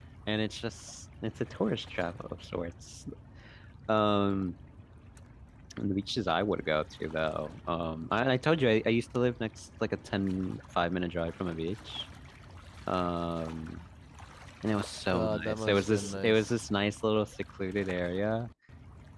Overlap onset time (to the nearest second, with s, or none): 15 s